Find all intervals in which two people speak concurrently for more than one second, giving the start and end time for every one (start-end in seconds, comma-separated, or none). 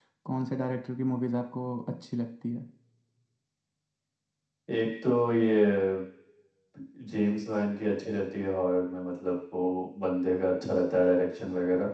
none